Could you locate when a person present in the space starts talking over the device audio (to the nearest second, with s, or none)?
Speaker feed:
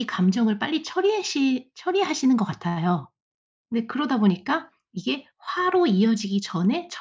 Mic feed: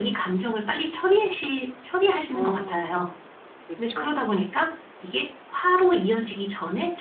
2 s